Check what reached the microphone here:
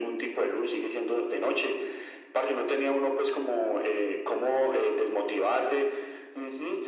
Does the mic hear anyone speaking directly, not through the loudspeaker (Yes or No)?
No